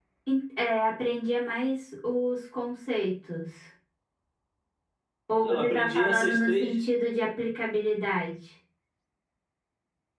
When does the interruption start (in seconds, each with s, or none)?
5.4 s